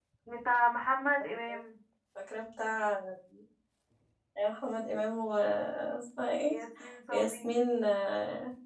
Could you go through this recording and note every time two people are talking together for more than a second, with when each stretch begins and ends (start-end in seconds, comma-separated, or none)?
none